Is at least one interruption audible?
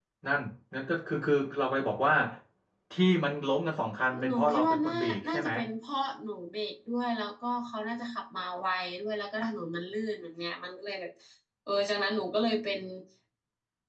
Yes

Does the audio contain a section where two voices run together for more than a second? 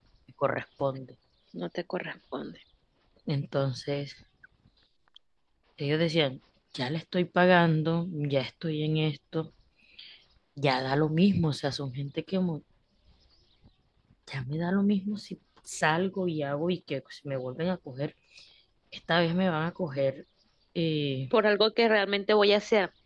No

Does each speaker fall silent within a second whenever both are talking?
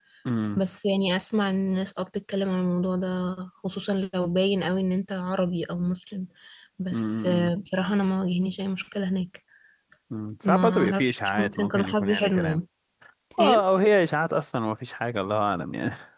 No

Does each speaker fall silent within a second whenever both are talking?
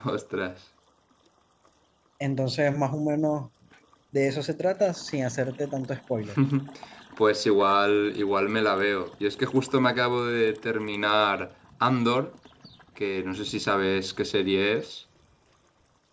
Yes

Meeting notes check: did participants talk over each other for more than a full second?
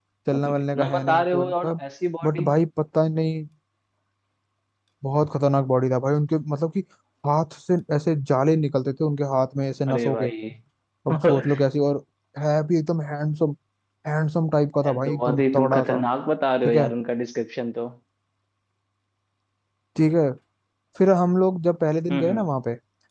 Yes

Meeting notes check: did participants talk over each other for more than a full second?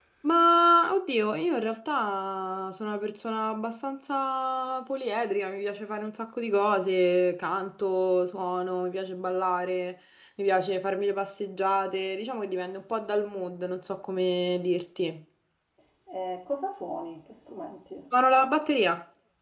No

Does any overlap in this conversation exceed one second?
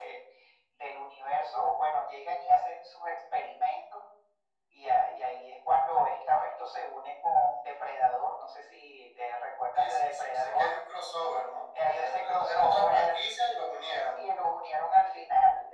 Yes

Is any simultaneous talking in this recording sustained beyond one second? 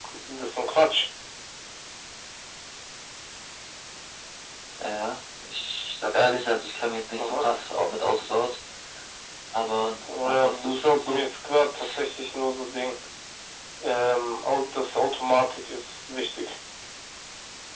Yes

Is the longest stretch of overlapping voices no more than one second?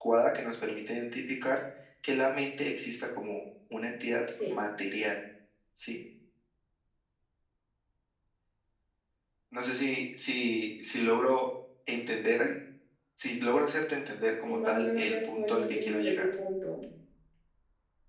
No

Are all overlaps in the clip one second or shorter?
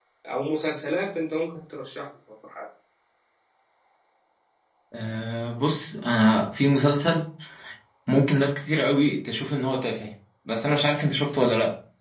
Yes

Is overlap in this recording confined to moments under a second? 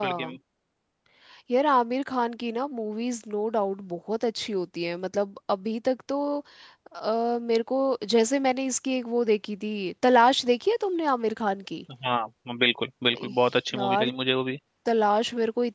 Yes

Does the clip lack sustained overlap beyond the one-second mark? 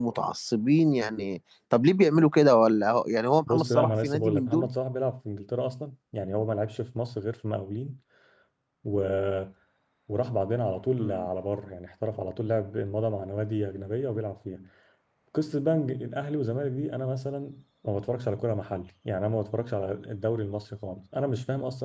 No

